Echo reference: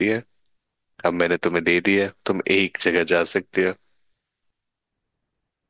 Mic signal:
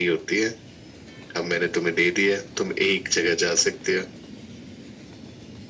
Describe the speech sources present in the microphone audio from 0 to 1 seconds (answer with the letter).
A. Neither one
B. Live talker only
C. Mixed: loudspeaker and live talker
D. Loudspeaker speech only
D